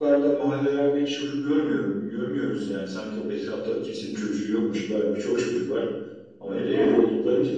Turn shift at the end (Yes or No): No